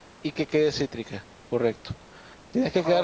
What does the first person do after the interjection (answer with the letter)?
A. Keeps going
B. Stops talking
A